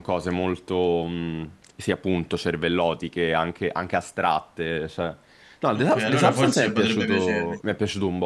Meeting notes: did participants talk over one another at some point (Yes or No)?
Yes